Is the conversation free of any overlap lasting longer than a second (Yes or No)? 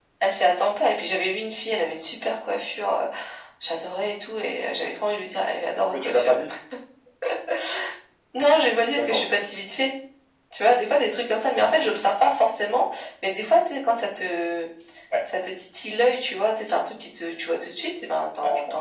Yes